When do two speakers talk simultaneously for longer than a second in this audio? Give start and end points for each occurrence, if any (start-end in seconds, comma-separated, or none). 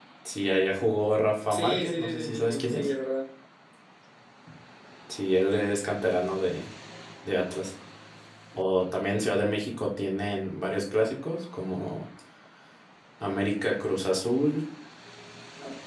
1.5-2.9